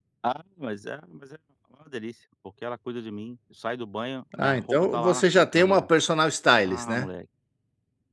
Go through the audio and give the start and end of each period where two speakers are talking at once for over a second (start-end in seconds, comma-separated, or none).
4.4-5.8